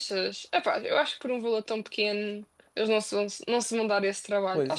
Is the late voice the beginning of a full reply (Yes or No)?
Yes